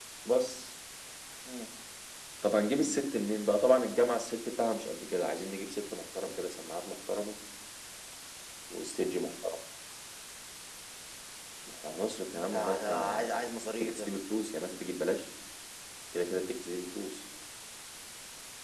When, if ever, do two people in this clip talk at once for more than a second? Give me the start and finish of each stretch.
12.3-14.1

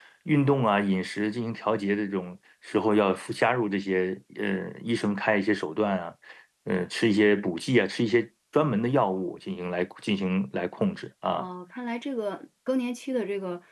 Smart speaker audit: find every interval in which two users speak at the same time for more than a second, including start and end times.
none

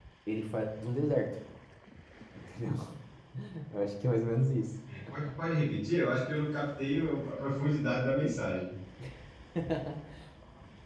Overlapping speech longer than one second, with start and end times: none

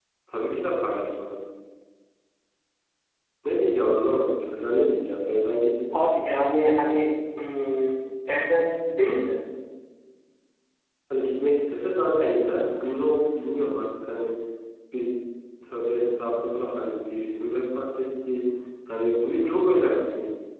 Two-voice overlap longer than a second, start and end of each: none

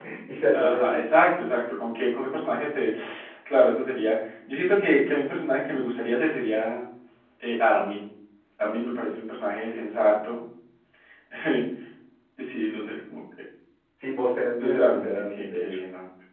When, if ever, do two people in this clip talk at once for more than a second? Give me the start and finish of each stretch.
14.5-15.8

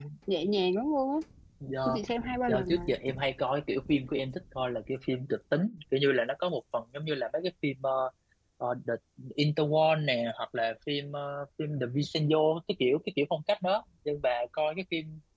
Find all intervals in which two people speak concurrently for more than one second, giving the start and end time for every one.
none

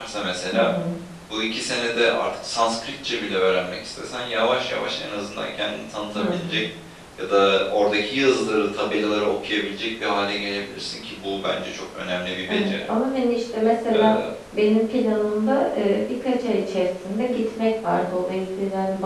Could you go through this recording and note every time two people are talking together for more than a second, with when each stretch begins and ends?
none

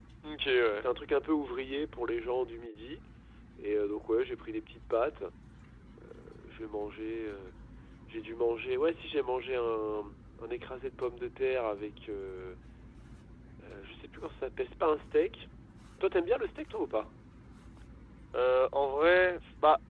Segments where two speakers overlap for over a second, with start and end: none

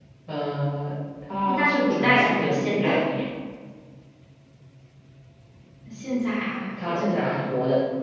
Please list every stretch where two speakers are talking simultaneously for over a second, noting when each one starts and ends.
1.4-3.0

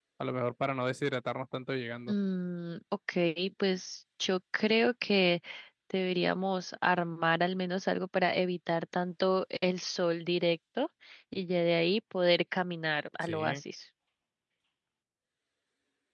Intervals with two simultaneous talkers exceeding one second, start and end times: none

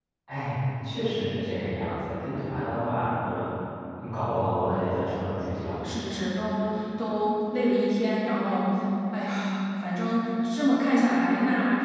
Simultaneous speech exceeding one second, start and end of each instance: none

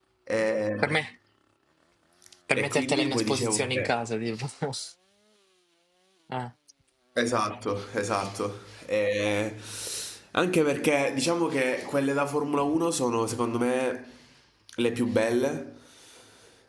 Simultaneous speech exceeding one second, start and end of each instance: 2.6-3.9

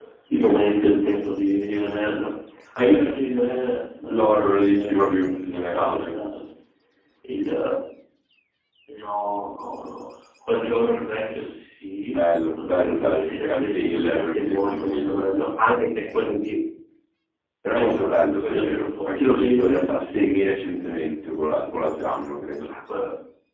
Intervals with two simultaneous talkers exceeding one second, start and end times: 4.1-6.2, 12.1-15.2, 17.8-20.0

